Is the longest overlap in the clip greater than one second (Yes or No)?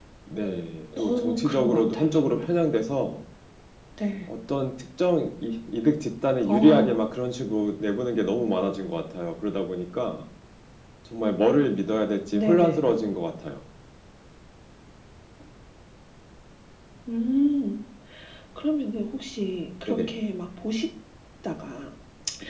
Yes